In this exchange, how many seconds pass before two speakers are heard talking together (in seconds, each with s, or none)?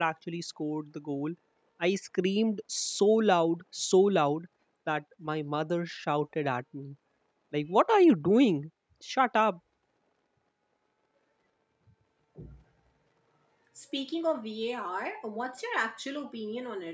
none